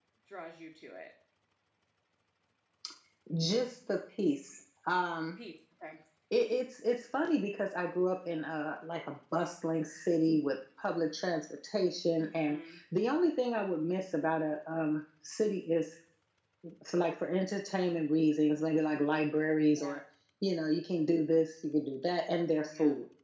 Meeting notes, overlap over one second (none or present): none